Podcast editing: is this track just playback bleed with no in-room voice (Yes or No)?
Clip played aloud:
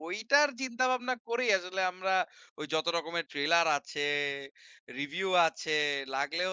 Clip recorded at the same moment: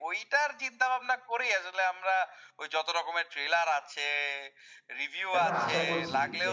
No